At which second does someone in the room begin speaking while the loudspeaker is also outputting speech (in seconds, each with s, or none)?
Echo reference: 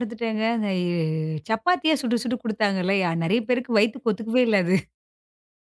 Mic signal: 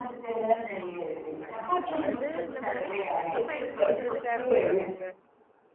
1.4 s